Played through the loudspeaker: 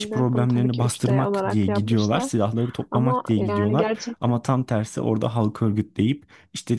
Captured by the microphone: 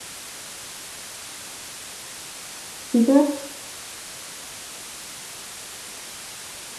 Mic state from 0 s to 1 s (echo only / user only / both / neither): neither